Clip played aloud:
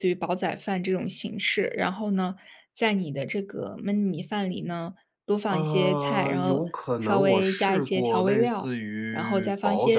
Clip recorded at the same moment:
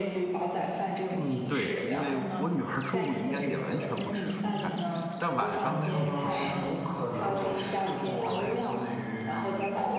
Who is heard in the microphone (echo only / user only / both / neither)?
both